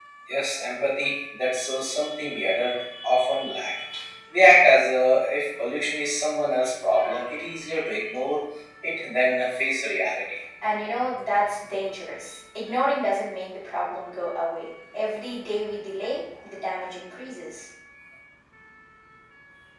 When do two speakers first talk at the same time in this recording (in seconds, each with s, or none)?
none